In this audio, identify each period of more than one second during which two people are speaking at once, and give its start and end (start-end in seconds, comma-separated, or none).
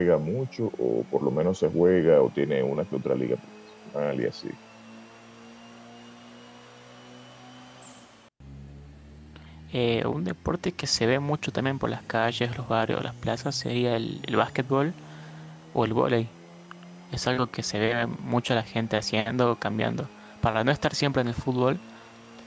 none